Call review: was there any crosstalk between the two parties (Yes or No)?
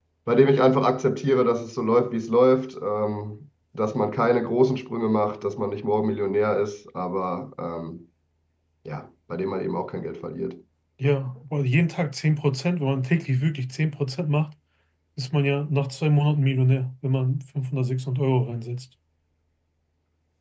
No